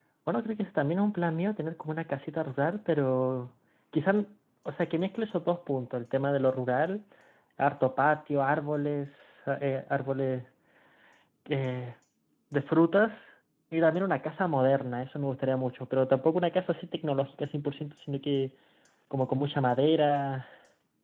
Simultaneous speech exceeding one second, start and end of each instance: none

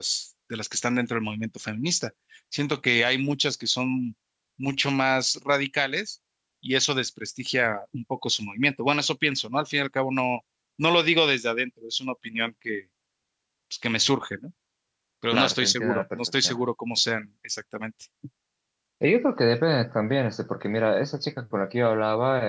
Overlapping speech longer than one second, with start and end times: 15.3-16.6

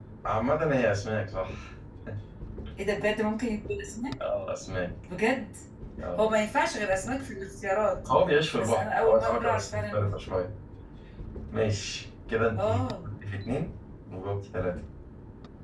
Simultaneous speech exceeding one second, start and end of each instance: 8.6-10.1

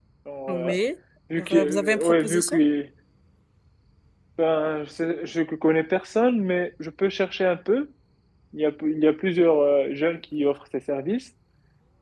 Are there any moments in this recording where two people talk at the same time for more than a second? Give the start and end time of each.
1.4-2.6

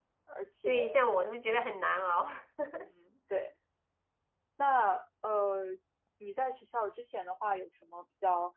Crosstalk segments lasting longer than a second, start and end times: none

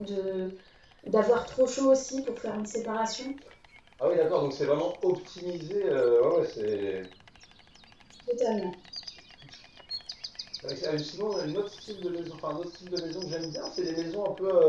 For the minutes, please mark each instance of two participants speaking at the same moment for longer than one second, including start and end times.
none

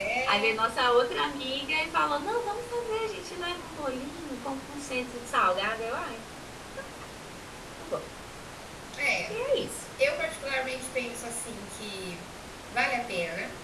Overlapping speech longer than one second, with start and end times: none

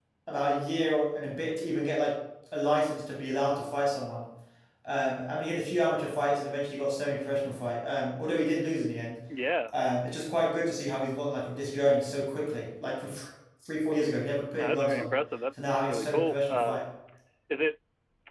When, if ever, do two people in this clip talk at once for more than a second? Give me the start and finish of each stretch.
15.6-16.8

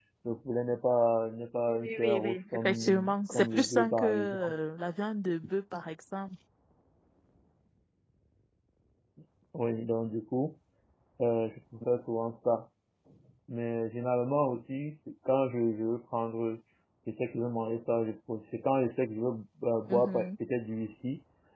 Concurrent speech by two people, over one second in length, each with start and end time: 1.7-4.5

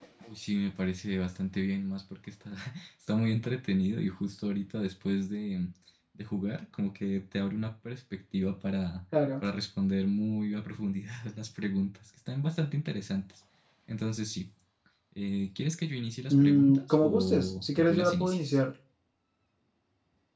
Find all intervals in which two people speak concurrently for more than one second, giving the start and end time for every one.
16.3-18.6

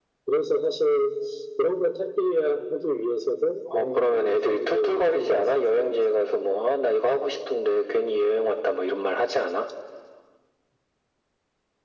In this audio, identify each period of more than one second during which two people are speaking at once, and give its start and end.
3.7-6.0

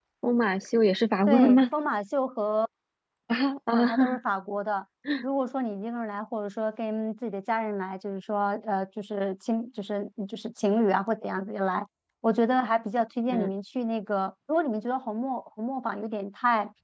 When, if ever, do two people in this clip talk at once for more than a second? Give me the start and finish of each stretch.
none

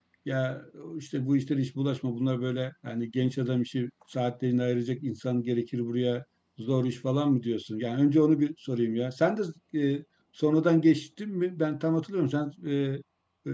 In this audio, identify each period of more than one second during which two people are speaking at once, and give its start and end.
none

